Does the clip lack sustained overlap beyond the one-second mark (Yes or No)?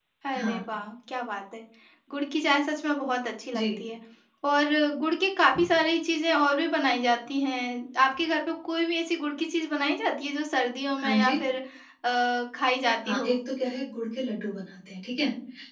Yes